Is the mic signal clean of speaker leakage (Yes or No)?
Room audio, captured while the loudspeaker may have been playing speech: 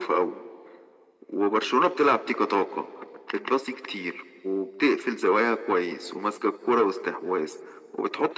No